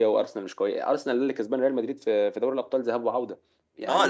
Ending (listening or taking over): taking over